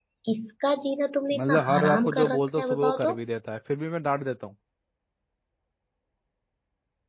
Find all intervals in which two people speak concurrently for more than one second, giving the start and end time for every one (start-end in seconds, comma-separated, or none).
1.3-3.2